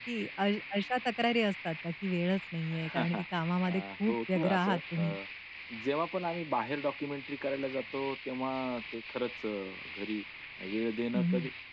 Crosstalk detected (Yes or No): Yes